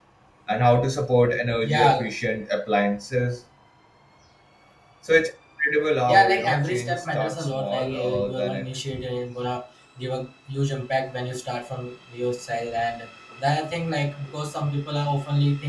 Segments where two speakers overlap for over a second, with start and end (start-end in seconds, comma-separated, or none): 6.1-8.7